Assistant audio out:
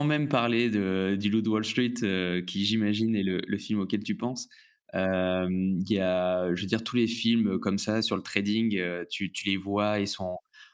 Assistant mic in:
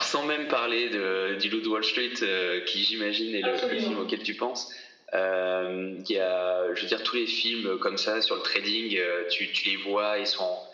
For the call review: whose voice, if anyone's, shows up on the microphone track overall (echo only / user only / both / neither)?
both